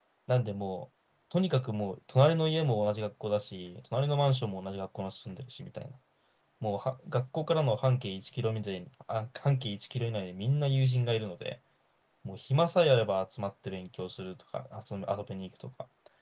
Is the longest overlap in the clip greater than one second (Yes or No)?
No